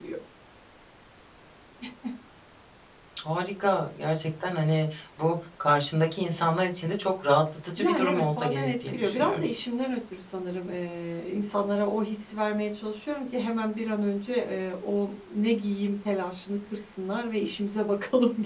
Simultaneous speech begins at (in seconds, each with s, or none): 7.8 s